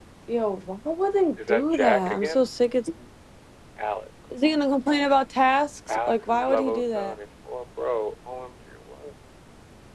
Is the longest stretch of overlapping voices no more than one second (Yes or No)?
No